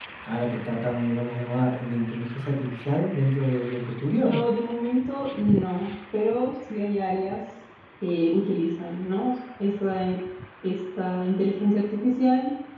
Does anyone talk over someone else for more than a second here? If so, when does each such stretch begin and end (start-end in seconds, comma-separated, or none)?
none